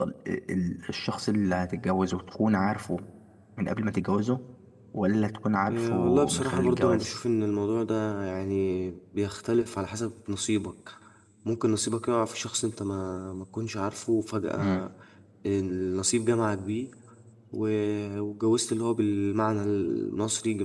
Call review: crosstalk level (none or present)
present